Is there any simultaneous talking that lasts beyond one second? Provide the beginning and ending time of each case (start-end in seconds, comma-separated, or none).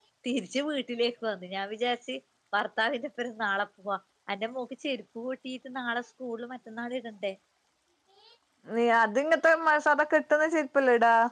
none